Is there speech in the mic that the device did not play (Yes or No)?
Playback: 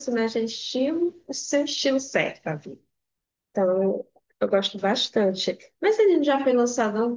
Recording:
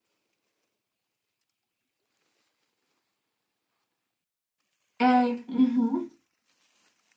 Yes